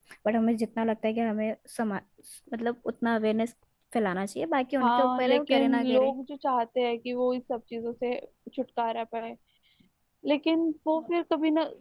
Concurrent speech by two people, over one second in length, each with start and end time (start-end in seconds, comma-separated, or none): 4.8-6.1